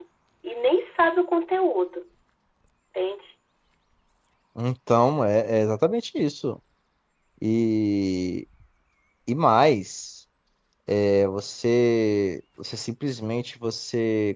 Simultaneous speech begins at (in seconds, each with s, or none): none